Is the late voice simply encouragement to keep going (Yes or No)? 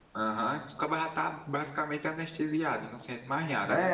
No